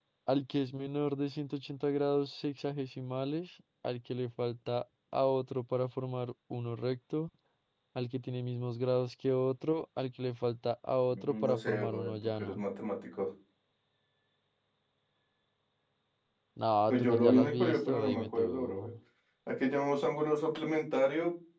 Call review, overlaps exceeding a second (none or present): present